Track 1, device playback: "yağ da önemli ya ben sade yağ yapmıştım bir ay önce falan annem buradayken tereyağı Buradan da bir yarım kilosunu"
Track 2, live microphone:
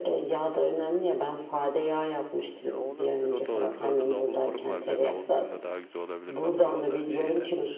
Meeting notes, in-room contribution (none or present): present